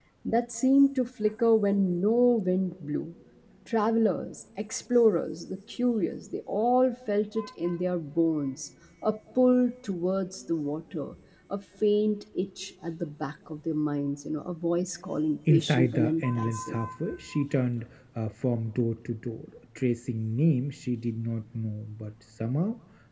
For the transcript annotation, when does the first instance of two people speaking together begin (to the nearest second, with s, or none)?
15 s